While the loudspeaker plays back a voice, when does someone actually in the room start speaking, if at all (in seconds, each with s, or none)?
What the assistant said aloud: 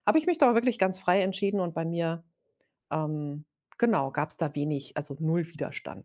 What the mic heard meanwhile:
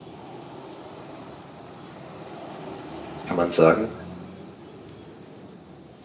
3.3 s